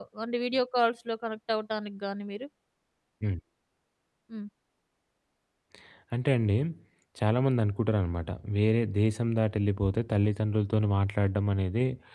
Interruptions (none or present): none